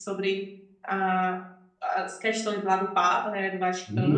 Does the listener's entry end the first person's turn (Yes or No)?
Yes